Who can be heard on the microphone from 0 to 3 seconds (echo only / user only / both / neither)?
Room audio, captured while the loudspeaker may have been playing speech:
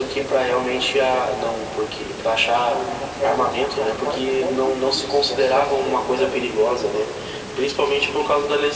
echo only